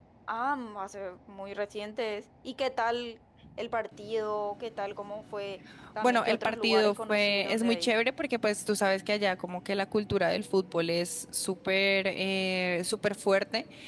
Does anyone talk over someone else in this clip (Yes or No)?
Yes